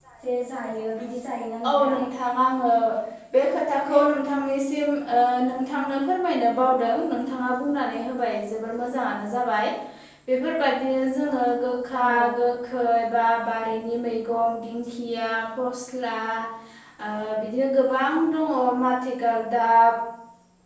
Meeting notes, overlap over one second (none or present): none